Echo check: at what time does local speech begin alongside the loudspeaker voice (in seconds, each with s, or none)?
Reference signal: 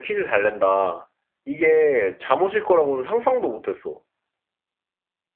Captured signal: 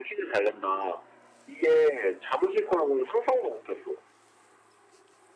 none